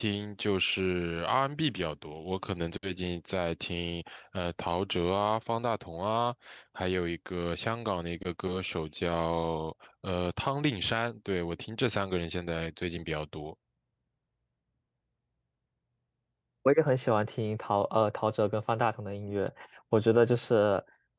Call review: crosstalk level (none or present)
none